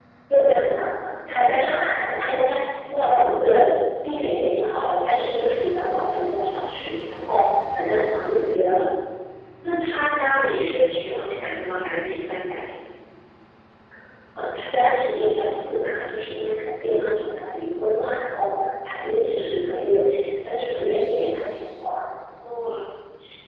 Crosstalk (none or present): none